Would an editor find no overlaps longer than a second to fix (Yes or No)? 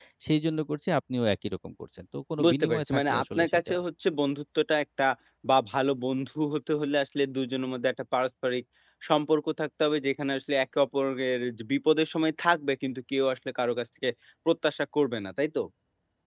No